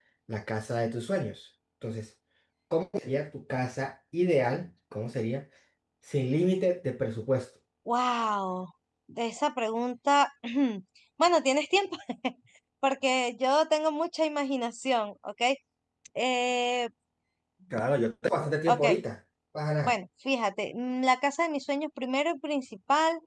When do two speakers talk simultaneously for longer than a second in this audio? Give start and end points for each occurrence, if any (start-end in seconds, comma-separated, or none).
none